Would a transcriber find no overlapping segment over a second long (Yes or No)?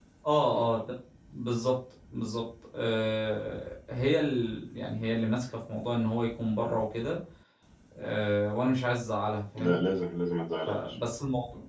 Yes